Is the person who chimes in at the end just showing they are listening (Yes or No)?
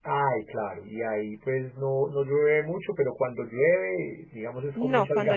No